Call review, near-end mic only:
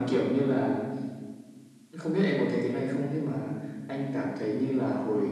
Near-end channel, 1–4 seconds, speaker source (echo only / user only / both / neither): echo only